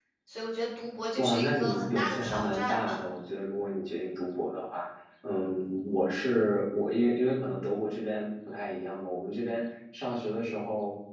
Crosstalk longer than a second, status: present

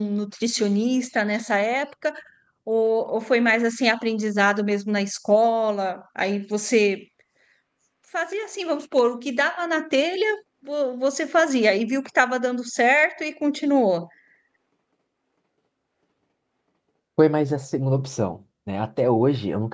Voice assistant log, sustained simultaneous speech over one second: none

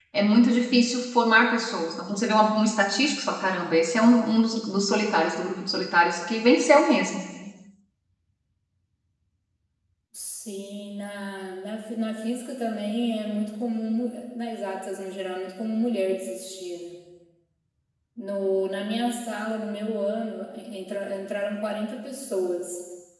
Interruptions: none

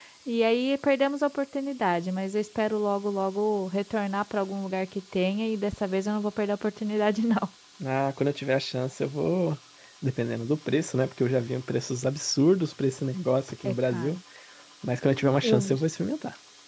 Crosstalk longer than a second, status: none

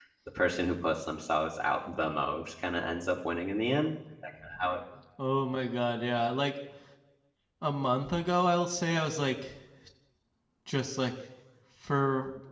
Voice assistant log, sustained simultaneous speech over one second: none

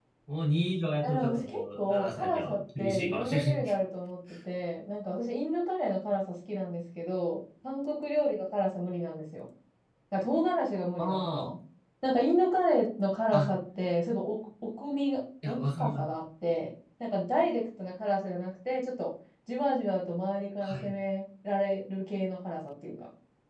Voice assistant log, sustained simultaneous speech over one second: present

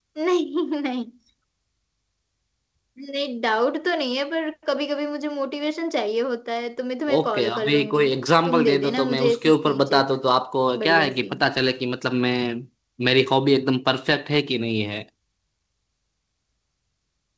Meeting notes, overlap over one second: present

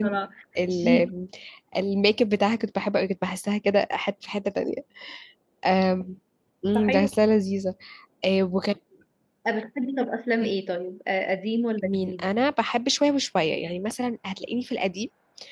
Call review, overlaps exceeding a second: none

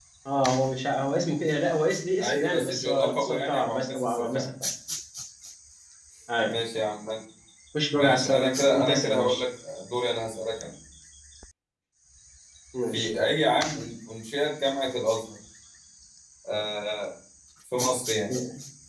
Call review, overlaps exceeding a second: present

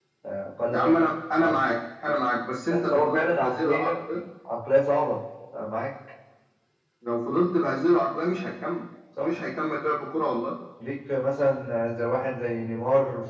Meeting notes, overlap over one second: present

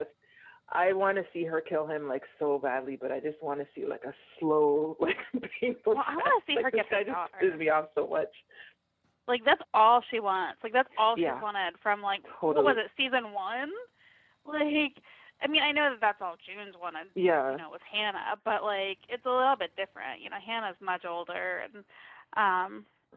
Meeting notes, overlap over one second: present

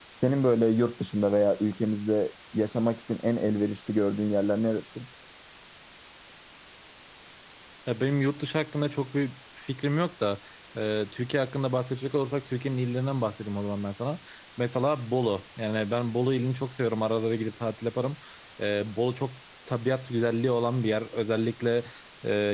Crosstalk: none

